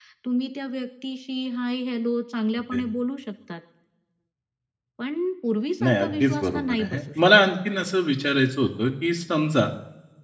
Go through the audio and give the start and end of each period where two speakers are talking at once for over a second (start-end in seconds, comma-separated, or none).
5.8-7.3